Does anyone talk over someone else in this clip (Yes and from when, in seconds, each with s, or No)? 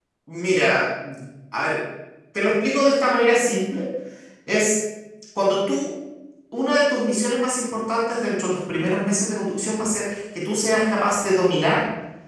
No